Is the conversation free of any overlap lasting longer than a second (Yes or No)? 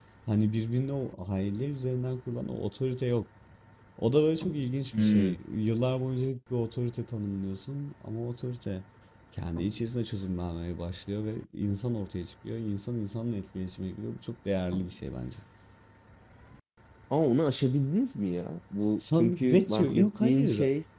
No